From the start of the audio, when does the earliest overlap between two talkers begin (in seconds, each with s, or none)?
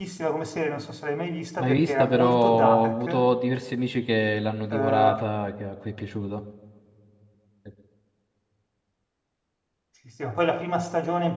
1.6 s